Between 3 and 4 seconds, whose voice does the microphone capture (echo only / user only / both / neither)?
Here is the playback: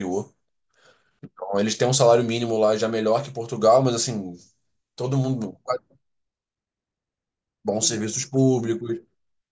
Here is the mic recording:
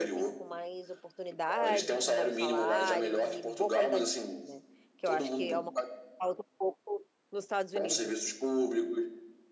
both